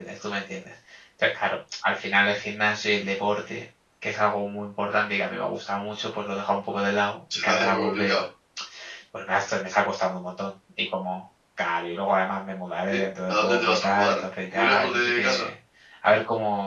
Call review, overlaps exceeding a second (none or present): present